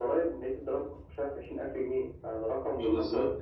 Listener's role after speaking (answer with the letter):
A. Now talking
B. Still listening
A